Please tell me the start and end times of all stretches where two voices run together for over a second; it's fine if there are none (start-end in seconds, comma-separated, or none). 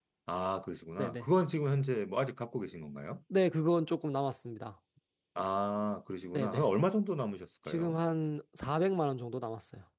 none